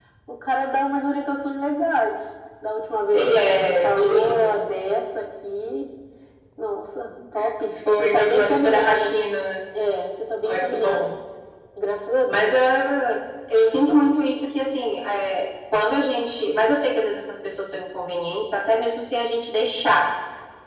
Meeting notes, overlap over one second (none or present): present